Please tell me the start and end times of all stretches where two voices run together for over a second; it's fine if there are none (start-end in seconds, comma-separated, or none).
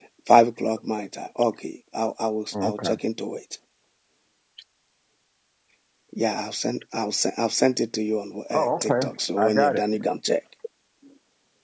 8.5-9.8